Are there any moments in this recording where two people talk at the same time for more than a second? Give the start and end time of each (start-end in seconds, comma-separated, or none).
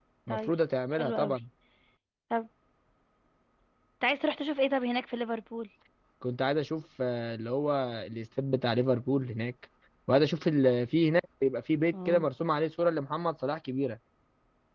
none